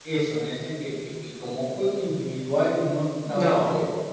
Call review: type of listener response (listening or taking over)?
listening